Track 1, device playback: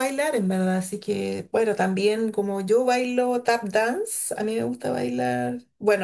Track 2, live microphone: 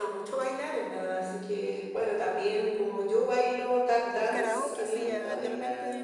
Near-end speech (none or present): present